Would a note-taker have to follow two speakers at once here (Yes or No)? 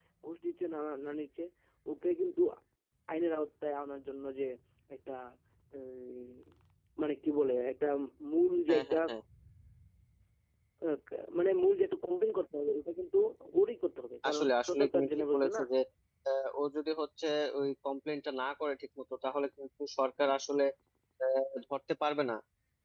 Yes